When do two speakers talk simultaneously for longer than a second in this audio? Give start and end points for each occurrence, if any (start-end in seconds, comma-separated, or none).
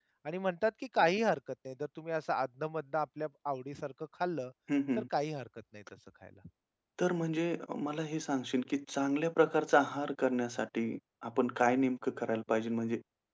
none